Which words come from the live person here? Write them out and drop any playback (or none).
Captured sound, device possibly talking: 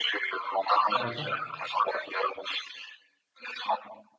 D'accord.